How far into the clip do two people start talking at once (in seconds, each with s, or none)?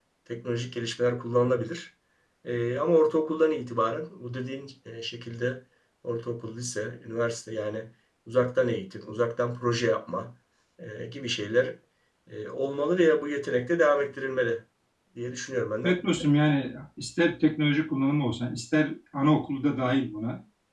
none